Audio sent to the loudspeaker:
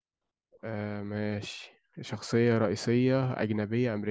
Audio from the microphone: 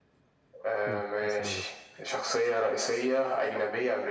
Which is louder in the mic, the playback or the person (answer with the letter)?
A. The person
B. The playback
B